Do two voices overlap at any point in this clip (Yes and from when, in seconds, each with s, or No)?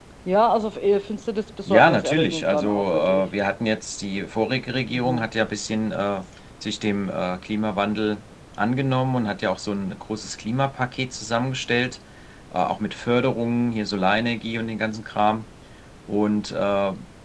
Yes, from 1.7 s